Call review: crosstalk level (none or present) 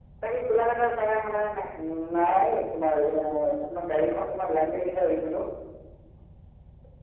none